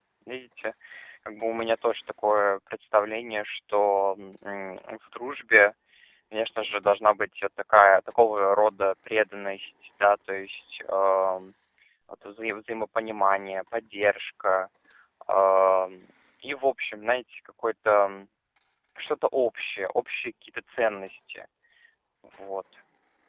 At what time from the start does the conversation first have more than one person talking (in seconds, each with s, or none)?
none